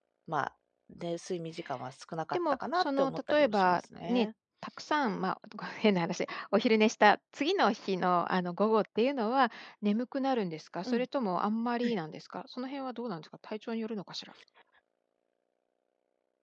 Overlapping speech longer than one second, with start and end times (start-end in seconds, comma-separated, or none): 2.3-4.3